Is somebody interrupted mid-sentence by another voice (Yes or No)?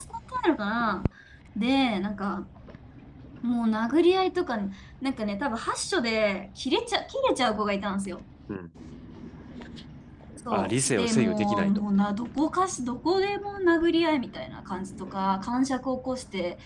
Yes